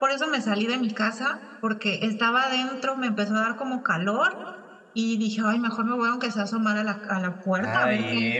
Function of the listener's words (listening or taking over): taking over